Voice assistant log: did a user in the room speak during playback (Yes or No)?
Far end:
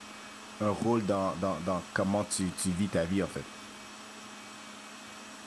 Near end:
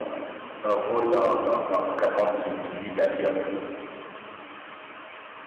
No